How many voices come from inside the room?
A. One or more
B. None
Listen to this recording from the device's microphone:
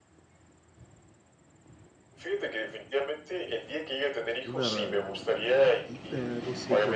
A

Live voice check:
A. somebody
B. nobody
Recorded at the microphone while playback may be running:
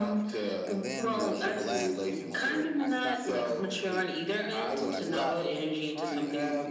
A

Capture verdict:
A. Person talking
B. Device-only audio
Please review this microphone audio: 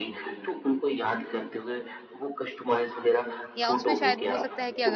A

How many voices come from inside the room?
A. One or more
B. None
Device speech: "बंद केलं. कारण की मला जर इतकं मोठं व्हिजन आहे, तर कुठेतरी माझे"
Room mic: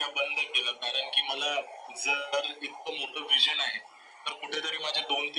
B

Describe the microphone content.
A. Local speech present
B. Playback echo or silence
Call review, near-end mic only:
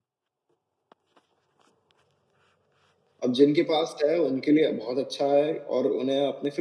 A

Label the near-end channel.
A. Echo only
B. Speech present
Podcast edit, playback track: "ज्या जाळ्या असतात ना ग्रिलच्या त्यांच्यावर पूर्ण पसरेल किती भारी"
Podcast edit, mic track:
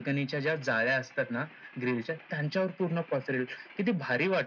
A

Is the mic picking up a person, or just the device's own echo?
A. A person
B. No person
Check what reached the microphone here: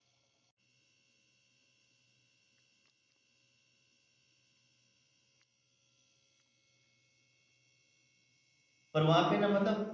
A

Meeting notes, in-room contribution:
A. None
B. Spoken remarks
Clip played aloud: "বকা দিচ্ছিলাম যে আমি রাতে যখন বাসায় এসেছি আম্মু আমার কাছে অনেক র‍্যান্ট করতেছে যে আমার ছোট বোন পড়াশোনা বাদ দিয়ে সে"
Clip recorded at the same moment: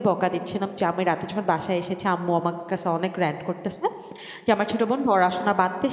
A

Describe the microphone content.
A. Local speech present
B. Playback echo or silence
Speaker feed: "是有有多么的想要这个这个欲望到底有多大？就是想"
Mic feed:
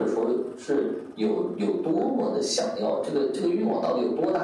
B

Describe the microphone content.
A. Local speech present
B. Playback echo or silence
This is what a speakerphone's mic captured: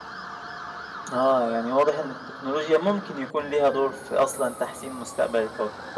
A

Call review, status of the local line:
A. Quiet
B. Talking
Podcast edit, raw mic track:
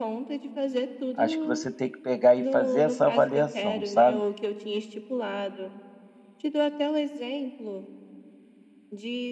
B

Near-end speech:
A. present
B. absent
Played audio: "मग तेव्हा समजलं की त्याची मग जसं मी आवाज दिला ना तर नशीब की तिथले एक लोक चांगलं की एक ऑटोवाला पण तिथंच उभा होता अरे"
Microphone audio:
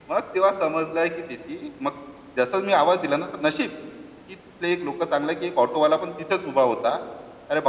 B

